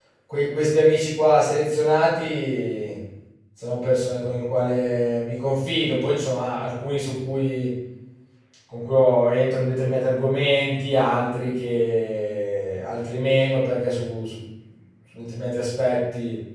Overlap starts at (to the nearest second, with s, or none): none